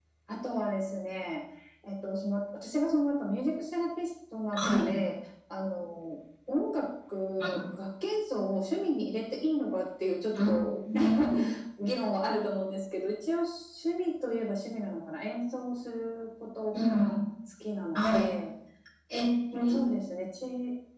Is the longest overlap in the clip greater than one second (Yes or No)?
No